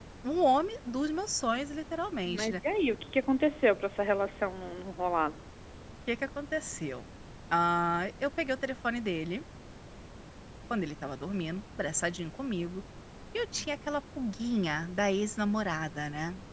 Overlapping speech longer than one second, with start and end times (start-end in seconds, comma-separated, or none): none